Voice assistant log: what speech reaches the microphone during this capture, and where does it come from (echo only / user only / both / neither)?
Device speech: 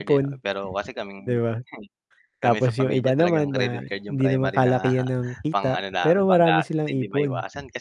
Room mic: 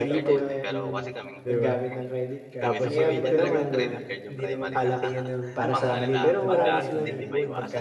both